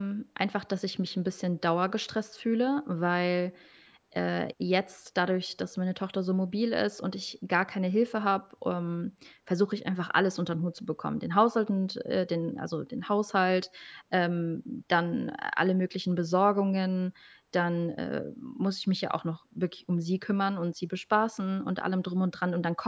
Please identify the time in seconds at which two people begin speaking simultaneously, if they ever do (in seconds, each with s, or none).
none